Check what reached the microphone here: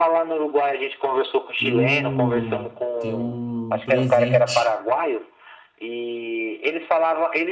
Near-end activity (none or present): present